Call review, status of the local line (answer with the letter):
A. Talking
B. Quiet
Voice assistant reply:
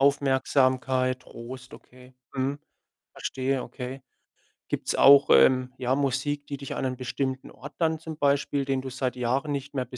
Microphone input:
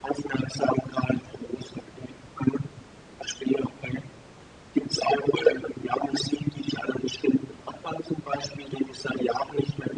B